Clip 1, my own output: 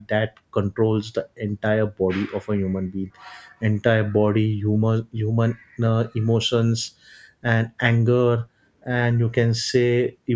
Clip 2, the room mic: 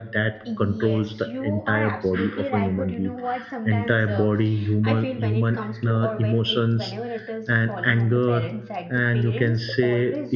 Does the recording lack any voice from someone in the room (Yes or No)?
No